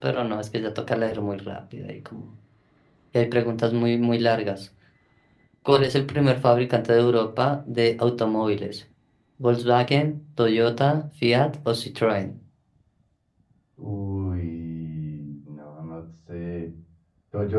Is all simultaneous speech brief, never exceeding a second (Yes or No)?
Yes